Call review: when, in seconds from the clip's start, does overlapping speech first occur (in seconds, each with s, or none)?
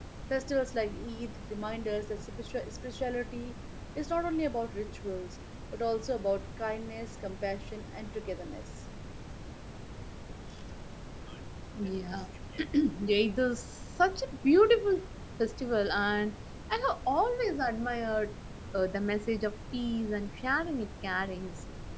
none